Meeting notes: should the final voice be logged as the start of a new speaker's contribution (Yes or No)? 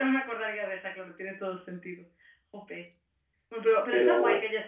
No